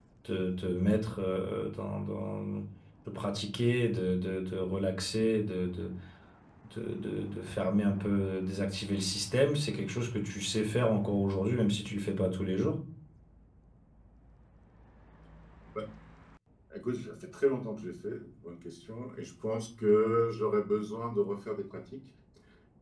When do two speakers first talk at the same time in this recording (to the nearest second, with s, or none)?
none